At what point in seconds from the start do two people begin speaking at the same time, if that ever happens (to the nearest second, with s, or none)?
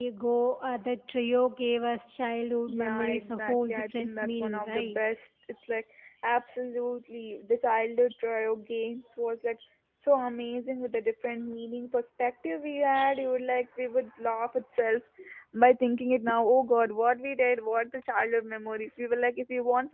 3 s